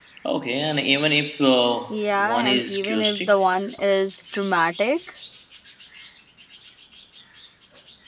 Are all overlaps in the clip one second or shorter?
No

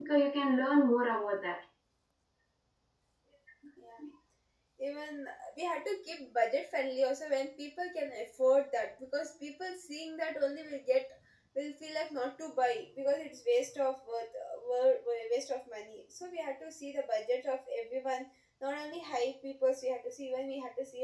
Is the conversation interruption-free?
Yes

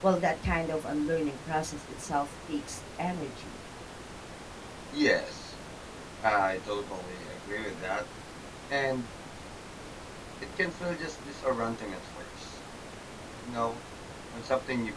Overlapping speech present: No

